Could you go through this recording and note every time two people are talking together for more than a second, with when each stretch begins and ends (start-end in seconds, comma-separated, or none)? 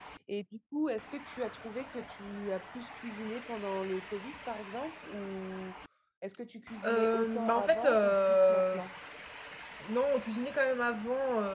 6.8-8.8